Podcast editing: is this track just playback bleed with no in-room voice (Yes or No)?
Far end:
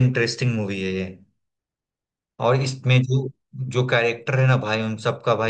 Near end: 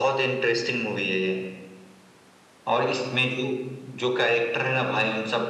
Yes